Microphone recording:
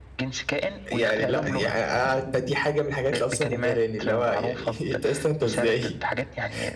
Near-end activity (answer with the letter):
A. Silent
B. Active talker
B